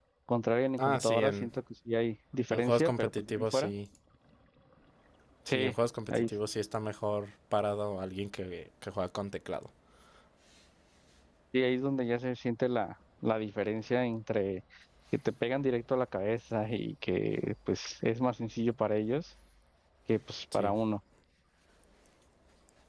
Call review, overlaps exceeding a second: present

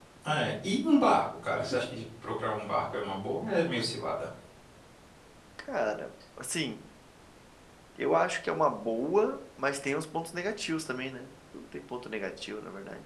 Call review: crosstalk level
none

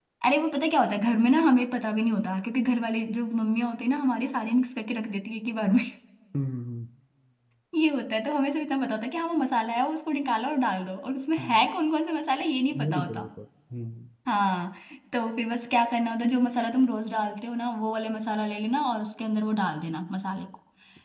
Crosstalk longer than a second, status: none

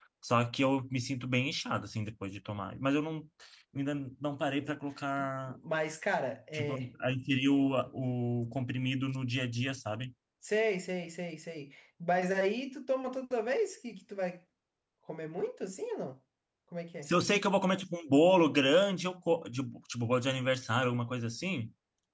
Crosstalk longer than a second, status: none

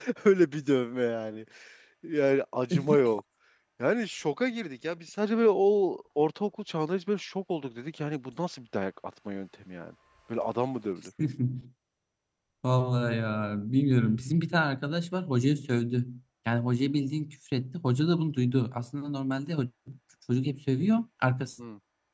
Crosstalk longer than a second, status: none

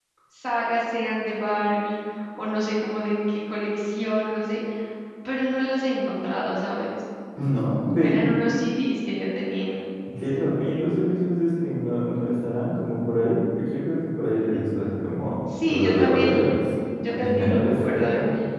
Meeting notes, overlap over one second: present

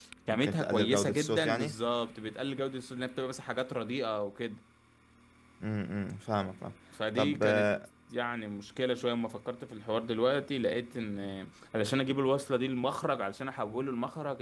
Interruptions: present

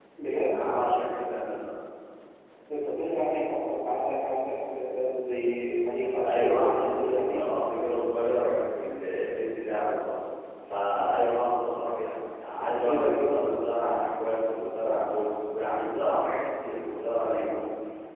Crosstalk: present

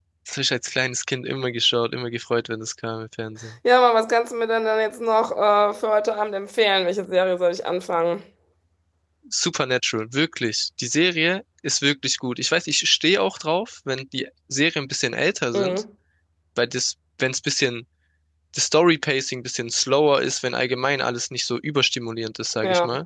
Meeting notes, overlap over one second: none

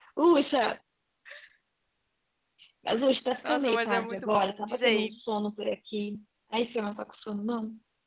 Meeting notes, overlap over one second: present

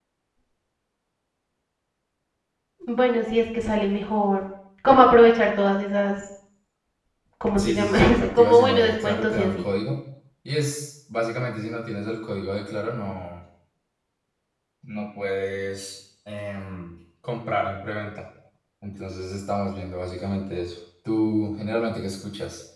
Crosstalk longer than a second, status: present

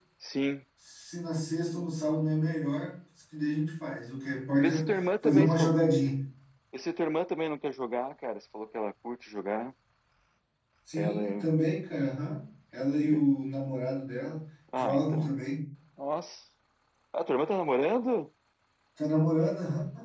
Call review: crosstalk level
present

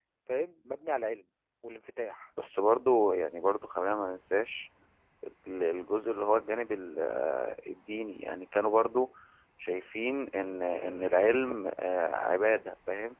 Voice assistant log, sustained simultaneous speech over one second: none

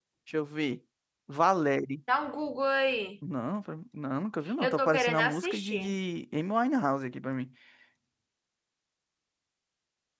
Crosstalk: present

